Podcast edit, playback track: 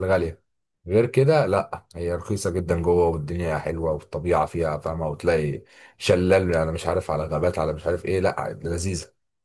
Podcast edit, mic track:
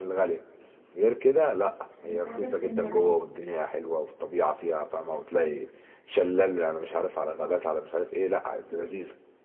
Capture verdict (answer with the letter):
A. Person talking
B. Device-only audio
A